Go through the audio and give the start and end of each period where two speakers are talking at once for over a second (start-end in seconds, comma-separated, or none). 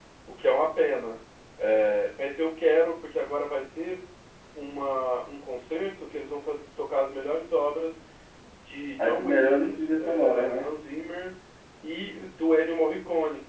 9.0-10.7